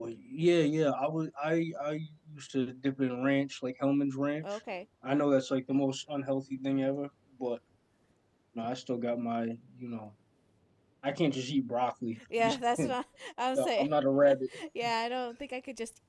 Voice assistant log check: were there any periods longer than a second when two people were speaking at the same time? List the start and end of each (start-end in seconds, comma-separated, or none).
none